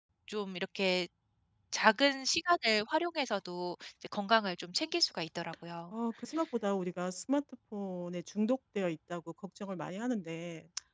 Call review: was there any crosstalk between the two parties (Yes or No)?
No